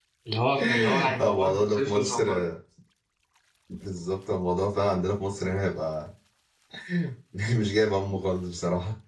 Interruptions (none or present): present